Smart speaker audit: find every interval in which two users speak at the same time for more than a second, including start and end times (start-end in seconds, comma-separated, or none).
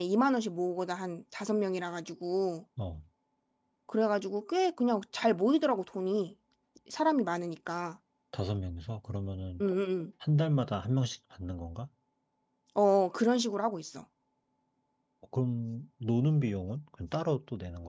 none